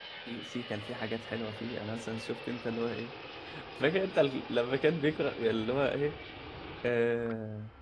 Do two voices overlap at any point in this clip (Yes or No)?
No